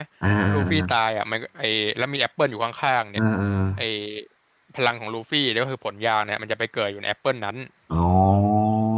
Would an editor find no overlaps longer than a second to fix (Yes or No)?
Yes